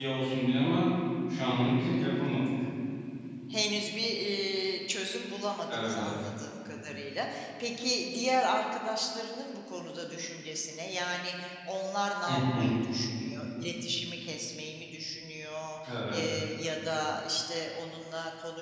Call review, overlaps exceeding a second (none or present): none